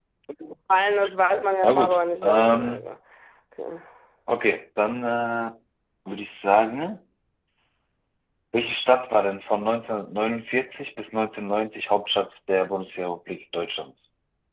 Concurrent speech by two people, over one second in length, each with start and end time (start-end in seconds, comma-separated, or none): 1.6-2.9